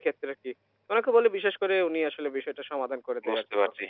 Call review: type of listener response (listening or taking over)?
taking over